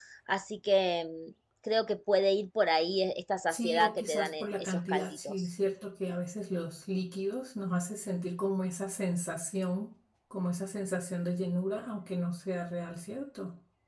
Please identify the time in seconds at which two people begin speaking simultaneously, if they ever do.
3.5 s

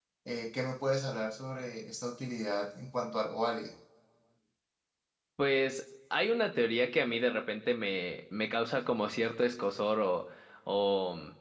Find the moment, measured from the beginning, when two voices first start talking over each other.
none

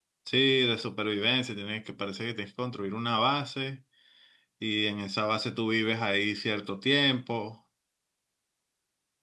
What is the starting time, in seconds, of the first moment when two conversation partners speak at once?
none

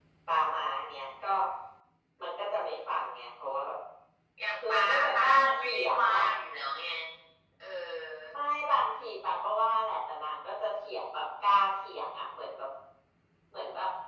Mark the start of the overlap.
4.7 s

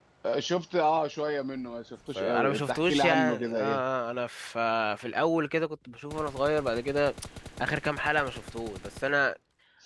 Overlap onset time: 2.1 s

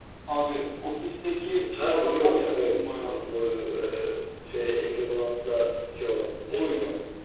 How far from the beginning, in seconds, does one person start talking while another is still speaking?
1.8 s

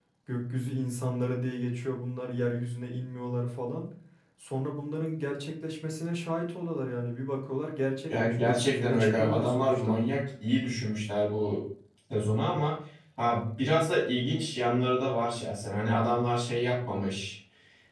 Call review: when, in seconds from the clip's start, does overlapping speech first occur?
8.1 s

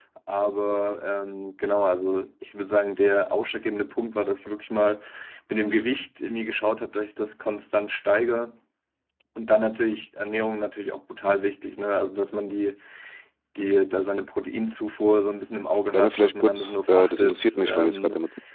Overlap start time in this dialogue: 15.9 s

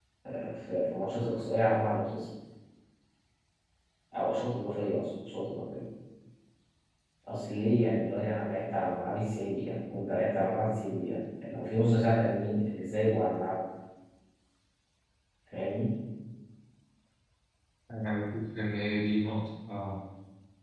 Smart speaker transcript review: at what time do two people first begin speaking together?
none

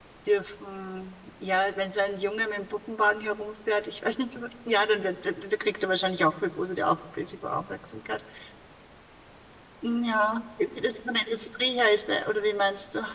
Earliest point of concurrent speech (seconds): none

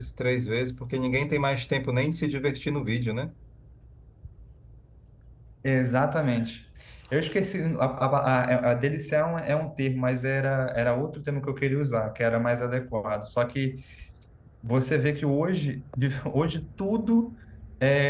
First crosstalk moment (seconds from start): none

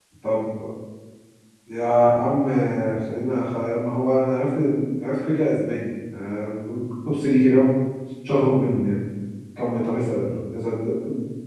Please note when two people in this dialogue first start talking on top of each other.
none

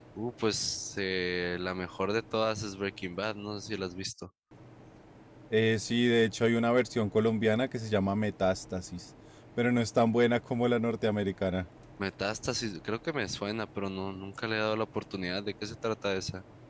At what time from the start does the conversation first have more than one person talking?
none

